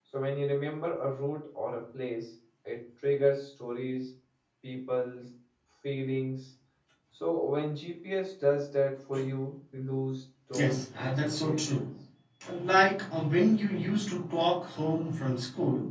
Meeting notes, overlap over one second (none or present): present